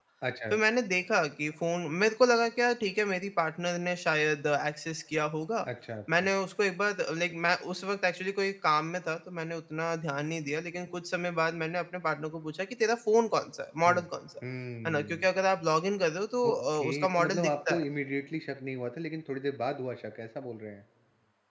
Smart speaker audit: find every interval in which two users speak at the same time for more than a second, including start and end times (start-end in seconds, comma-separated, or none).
16.5-17.8